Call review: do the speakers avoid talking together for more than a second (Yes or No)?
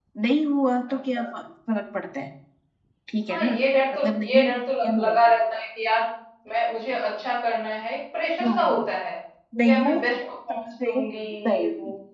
No